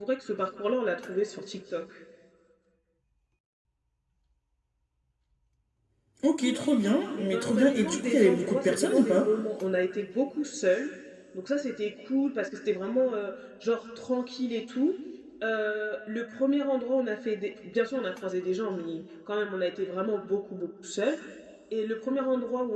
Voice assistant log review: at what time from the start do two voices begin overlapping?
7.2 s

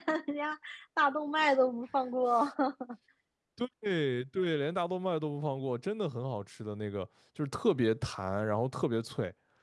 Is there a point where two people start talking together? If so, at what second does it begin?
none

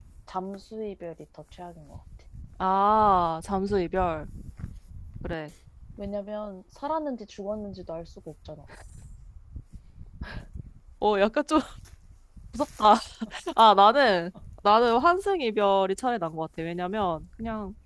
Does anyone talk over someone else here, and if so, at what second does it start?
none

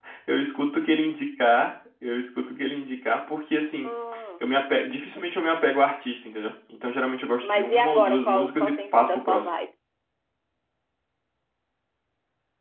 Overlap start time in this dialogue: 7.4 s

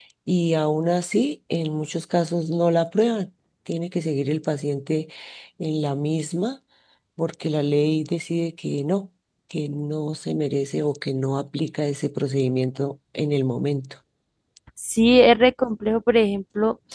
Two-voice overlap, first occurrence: none

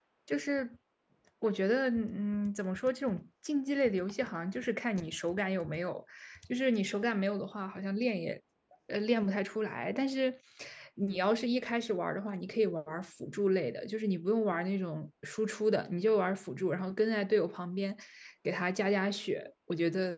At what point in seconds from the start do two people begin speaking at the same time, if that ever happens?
none

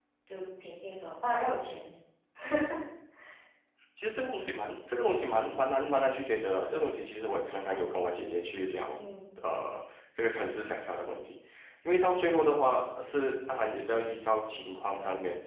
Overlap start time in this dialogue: none

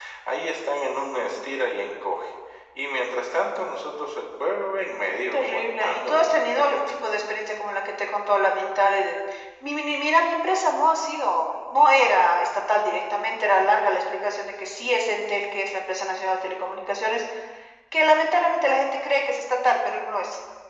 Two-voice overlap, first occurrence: 5.3 s

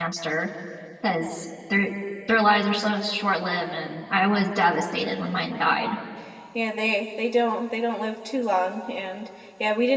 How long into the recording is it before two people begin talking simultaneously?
none

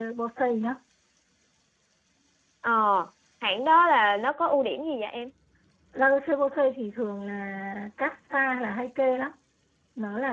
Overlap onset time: none

